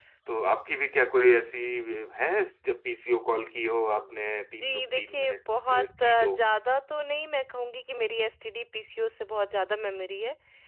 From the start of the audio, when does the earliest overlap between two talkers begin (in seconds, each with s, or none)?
3.9 s